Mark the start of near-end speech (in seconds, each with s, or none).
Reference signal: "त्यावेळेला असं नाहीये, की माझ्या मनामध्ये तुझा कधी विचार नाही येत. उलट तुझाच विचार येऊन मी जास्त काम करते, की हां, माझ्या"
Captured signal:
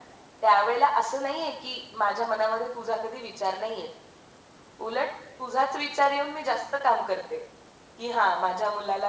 none